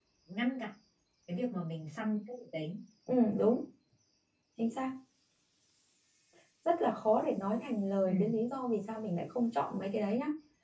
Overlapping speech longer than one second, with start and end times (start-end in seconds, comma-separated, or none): none